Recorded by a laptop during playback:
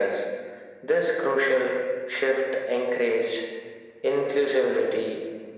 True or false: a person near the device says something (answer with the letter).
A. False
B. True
A